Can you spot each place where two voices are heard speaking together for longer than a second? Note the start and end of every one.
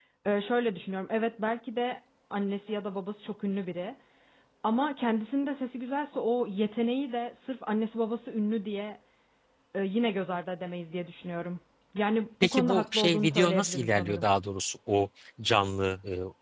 12.4-14.2

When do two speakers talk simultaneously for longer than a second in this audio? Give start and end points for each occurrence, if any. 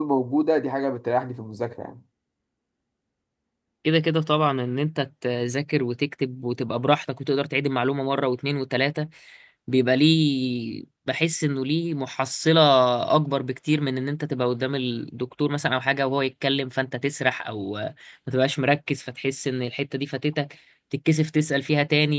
none

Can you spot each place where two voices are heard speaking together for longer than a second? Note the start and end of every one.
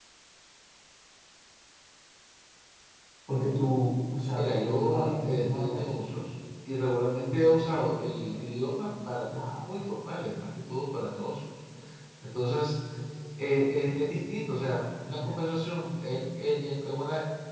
4.2-5.9

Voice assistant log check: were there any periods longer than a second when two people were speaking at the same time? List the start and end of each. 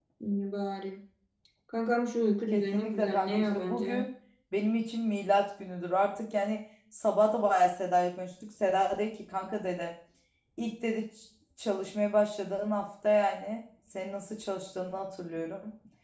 2.5-4.1

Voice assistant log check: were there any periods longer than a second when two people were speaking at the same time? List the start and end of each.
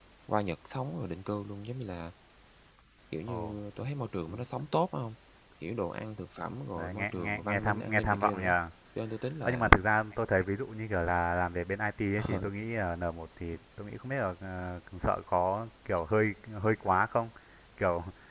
6.8-8.5

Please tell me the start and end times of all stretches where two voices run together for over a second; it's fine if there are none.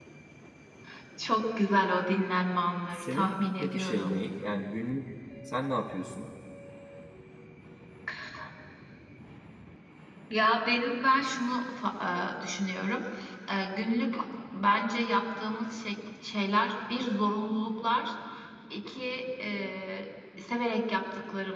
2.9-4.2

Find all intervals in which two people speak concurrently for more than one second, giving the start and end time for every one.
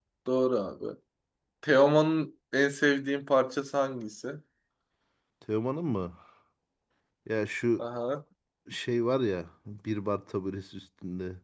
none

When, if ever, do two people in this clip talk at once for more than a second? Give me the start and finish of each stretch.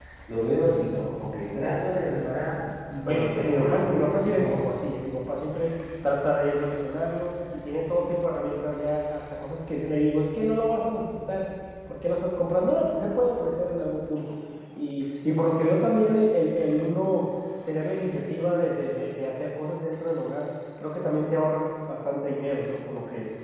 3.0-4.6

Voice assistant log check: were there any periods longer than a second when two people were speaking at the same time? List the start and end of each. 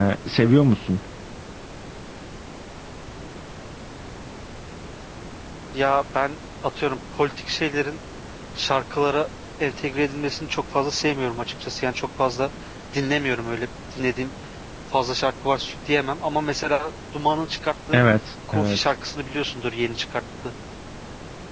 none

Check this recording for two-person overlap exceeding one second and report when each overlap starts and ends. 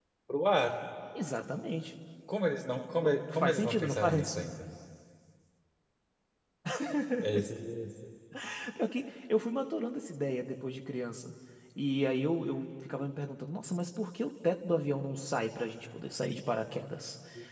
3.0-4.3

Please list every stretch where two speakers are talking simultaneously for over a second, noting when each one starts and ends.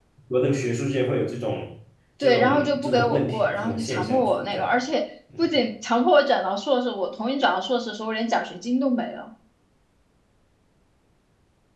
2.2-4.7

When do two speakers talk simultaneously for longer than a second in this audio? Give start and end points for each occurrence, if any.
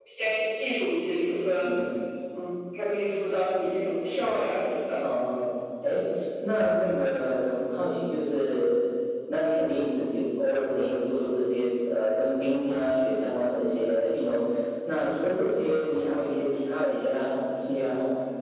none

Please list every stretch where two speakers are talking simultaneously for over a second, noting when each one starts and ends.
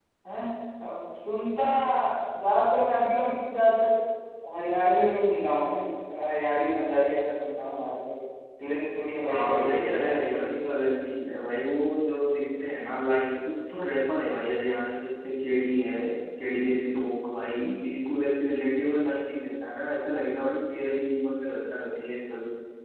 9.2-10.5

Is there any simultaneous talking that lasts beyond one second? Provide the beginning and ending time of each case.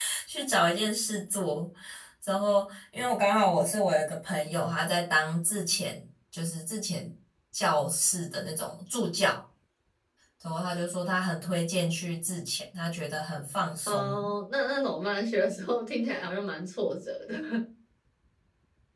none

